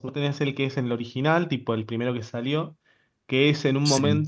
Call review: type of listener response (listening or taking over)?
listening